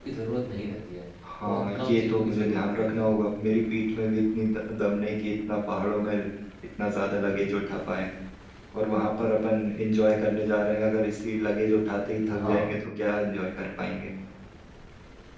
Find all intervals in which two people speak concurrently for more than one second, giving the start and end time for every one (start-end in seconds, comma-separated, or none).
1.4-3.1